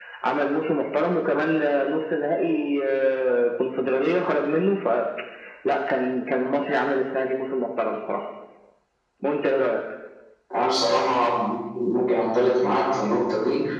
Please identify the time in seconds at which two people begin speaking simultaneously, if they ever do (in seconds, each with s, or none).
none